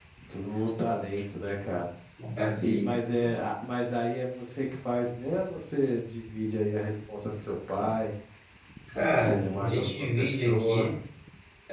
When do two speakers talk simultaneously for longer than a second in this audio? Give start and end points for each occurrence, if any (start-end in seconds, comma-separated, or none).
9.2-10.9